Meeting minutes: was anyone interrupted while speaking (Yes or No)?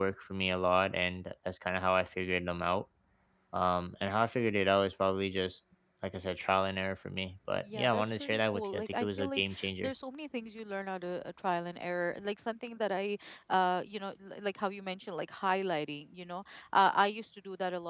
Yes